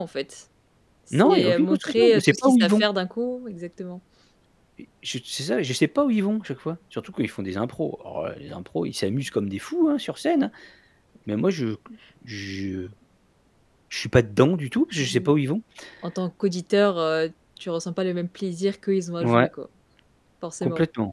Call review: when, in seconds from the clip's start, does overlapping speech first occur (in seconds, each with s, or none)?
1.2 s